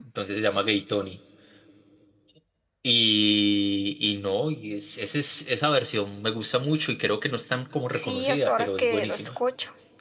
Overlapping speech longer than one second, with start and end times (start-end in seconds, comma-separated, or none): 7.9-9.3